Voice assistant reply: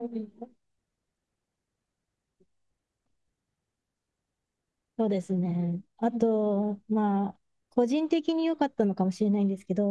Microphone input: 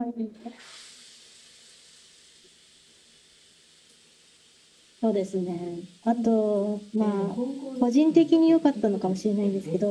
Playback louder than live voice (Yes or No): Yes